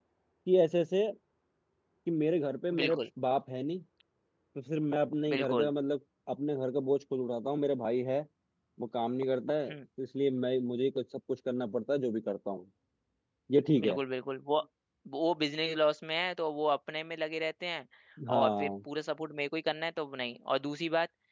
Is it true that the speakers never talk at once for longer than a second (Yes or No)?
Yes